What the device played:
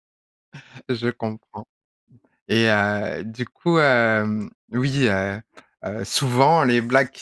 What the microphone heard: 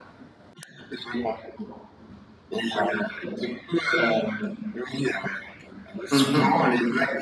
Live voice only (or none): Mmh mh.